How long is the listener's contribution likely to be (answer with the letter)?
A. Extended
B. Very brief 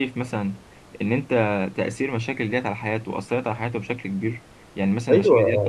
A